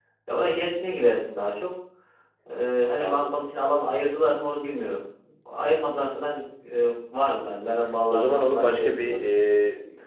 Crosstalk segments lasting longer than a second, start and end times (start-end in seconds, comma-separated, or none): 8.1-9.3